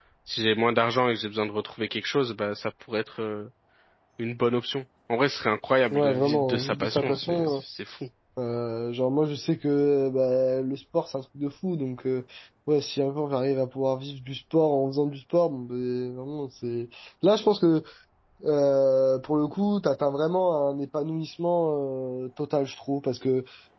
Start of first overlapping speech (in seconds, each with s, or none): 5.9 s